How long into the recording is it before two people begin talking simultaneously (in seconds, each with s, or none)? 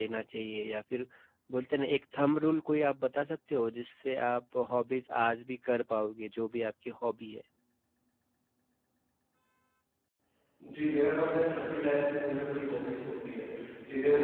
none